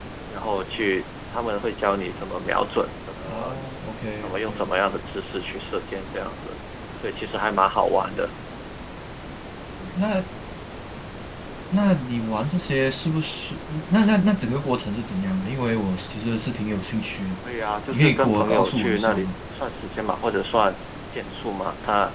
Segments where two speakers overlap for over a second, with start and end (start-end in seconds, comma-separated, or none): 17.9-19.3